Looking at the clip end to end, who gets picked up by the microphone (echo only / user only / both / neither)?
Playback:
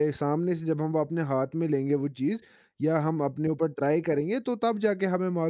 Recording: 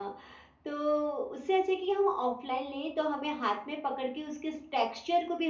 user only